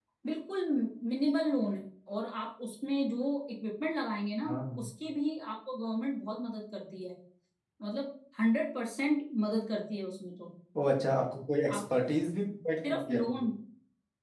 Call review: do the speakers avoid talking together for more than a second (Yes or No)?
Yes